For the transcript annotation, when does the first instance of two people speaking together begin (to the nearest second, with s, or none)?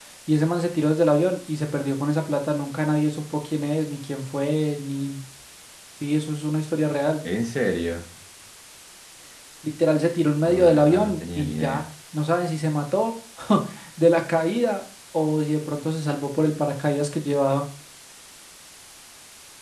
10 s